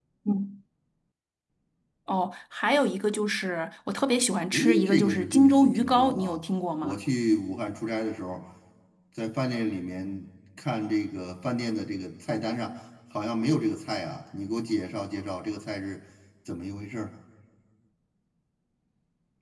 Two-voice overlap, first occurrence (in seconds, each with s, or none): 4.5 s